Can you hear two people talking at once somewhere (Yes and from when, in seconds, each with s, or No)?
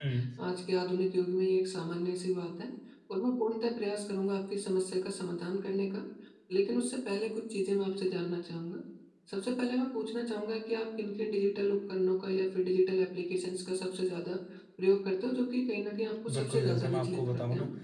Yes, from 16.3 s